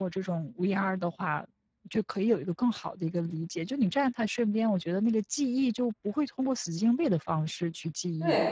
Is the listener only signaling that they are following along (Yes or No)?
No